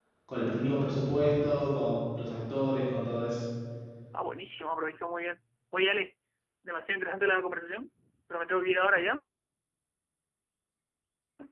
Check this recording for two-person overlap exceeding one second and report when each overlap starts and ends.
none

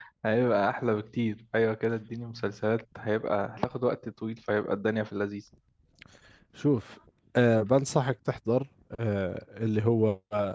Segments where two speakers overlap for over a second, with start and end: none

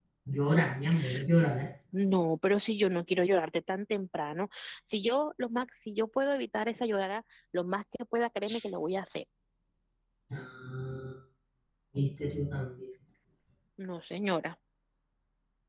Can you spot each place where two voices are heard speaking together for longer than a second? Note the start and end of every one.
none

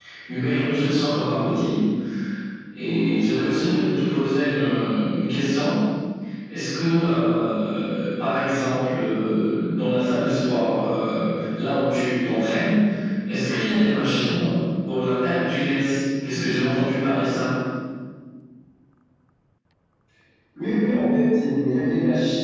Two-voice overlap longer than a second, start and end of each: none

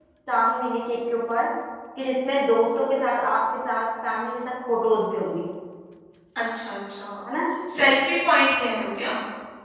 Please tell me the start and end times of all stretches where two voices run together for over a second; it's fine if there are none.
none

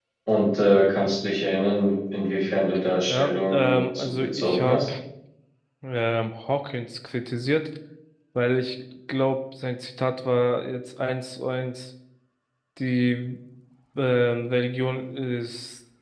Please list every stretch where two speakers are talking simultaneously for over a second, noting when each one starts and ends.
3.1-4.8

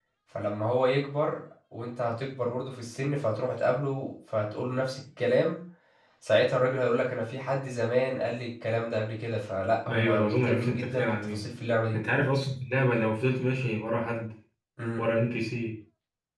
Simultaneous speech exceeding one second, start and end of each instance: 9.9-11.4

